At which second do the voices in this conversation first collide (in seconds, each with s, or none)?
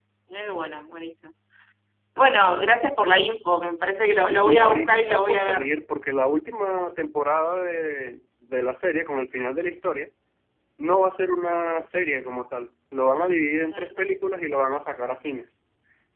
4.3 s